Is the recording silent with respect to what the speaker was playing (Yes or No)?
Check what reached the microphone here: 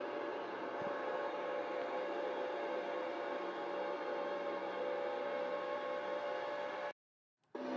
Yes